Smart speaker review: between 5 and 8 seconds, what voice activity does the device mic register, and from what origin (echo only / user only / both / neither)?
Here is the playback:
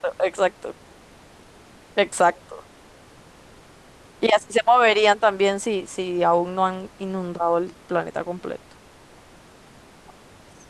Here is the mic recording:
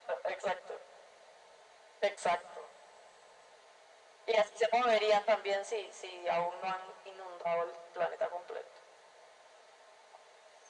echo only